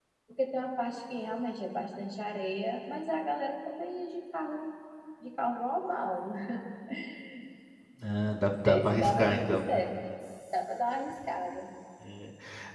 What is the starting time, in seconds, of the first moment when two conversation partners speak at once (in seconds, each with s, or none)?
8.4 s